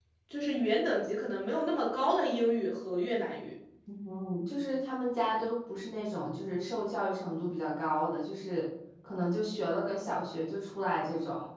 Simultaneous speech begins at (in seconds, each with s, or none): none